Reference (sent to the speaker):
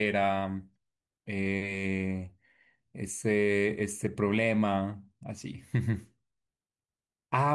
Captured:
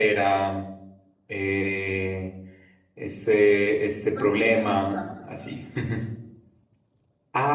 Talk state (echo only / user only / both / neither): both